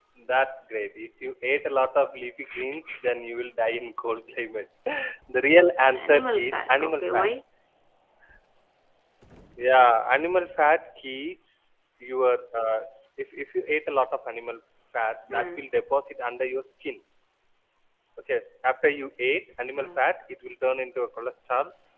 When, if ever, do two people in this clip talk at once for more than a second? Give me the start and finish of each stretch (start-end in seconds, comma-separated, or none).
5.9-7.3